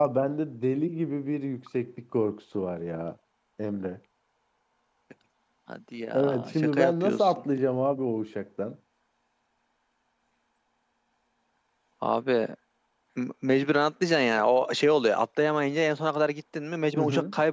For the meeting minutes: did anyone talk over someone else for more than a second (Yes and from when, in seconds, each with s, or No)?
Yes, from 6.1 s